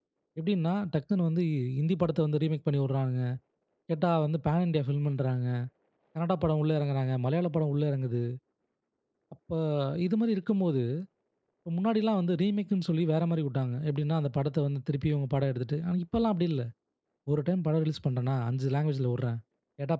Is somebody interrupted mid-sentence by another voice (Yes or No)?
No